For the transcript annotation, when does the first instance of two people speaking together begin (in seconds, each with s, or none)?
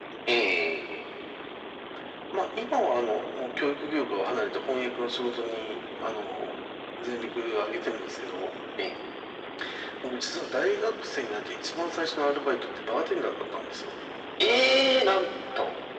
none